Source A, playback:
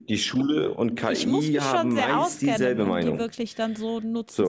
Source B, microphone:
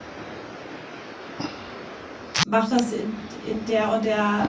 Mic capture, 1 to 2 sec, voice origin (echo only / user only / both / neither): neither